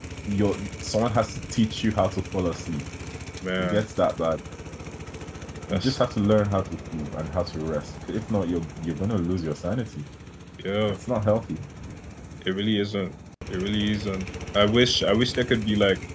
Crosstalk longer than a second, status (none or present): none